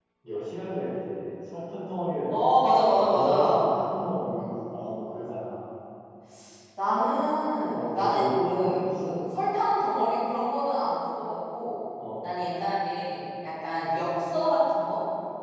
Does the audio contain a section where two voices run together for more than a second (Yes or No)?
Yes